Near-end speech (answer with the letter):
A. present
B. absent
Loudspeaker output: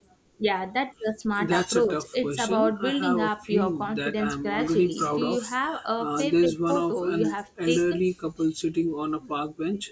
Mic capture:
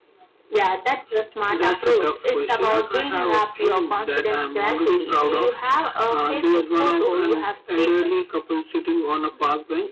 B